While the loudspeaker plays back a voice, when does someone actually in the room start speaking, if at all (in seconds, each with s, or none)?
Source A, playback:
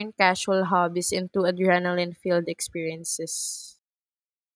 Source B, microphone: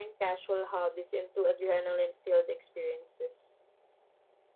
none